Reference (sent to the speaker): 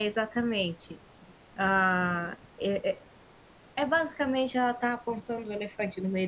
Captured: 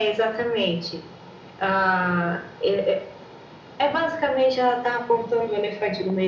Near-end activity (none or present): none